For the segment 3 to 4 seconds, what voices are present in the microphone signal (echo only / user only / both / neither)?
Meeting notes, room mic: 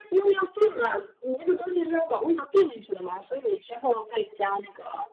echo only